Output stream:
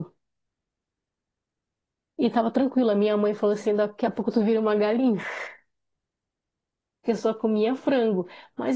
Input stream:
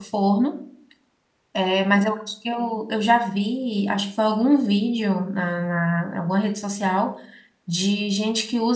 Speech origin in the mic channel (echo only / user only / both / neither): user only